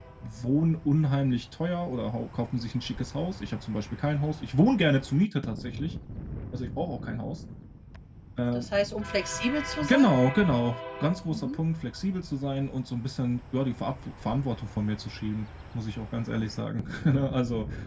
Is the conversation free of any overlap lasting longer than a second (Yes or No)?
Yes